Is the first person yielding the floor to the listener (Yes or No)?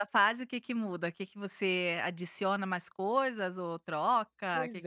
Yes